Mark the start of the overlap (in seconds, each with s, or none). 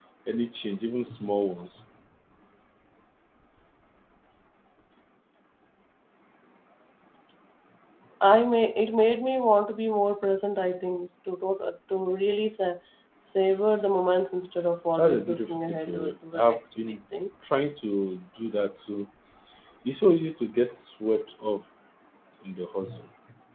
14.9 s